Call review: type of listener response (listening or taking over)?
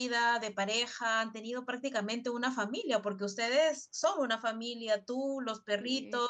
listening